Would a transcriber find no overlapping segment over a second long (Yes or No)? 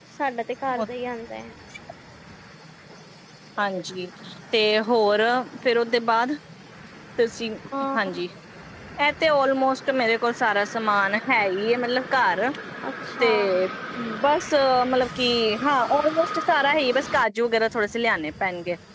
Yes